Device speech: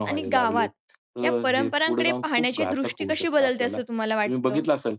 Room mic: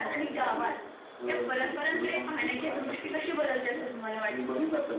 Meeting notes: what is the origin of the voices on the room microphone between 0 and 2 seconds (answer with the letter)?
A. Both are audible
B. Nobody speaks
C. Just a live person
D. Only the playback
D